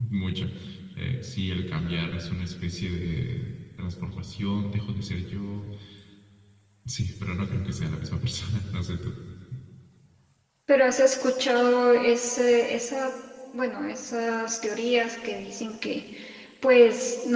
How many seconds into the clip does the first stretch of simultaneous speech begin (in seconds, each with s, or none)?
none